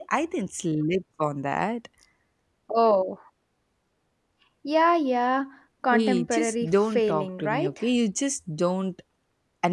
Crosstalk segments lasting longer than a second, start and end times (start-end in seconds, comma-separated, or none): 5.9-7.7